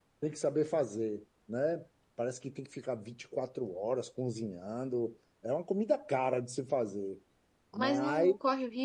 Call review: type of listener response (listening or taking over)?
taking over